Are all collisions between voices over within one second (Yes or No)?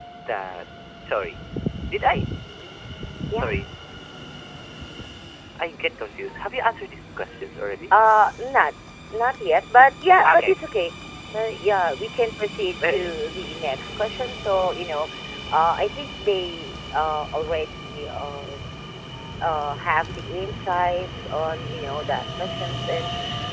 Yes